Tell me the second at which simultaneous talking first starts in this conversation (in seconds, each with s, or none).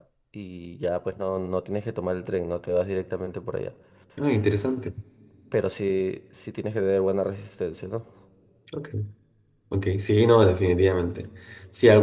none